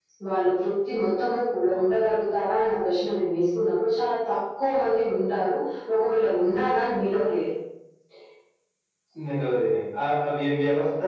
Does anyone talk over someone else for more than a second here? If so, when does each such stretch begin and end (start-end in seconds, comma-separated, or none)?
none